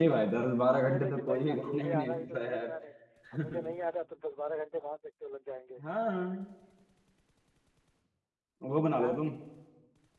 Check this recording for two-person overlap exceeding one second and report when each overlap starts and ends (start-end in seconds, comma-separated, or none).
0.8-2.7